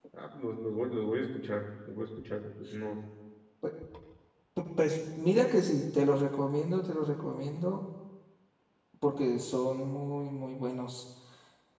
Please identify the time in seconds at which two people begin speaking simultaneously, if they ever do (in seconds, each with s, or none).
none